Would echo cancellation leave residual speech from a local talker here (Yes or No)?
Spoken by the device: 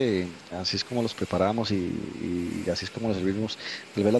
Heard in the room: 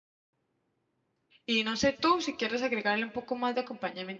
Yes